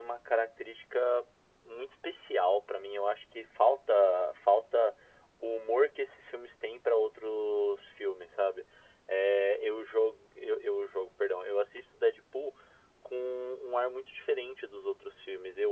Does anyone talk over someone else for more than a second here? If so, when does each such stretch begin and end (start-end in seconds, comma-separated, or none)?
none